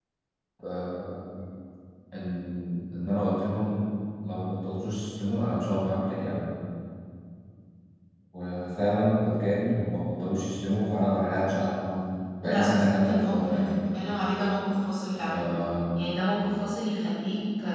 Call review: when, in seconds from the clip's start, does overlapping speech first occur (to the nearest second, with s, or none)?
12 s